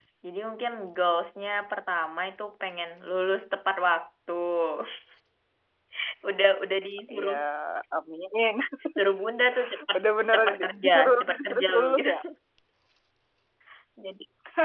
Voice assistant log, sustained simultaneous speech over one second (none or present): present